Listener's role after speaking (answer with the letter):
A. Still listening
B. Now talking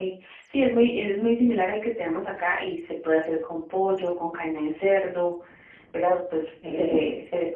A